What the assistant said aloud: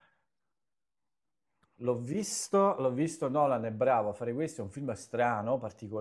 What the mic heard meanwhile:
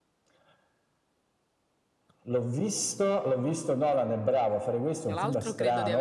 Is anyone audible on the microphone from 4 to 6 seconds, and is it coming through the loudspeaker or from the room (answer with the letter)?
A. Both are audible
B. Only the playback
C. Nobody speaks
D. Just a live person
A